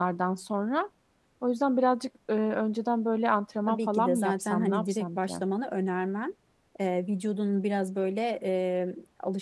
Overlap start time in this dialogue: 3.7 s

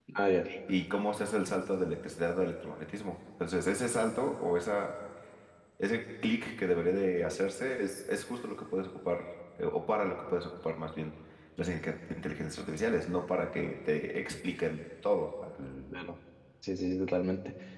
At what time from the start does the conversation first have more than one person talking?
none

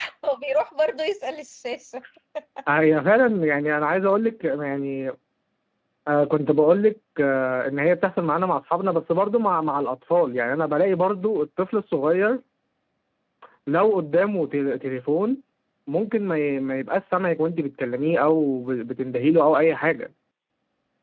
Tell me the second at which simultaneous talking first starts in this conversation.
none

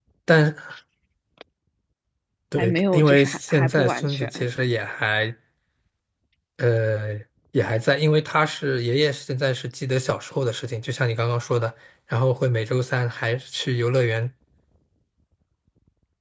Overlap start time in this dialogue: 2.6 s

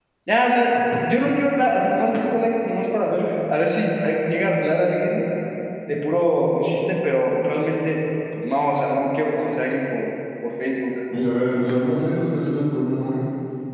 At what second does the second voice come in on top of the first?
none

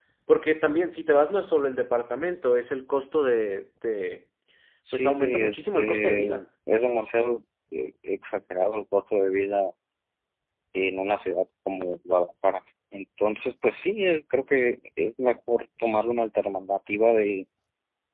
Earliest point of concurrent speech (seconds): 4.9 s

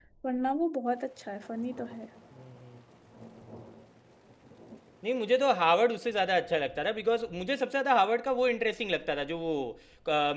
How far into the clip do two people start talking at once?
none

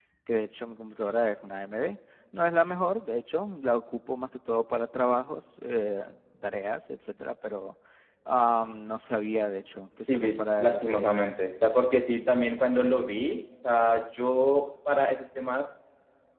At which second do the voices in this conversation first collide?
10.1 s

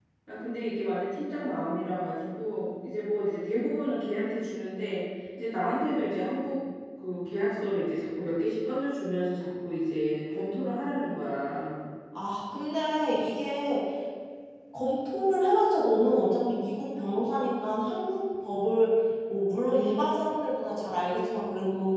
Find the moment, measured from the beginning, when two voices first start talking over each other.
none

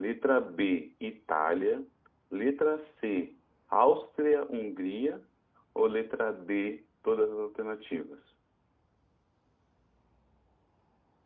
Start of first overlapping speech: none

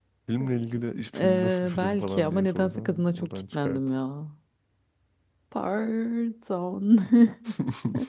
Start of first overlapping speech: 1.2 s

